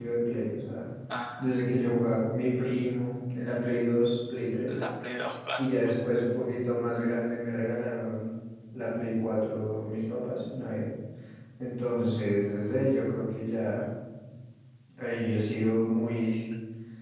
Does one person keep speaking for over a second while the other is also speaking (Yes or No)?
No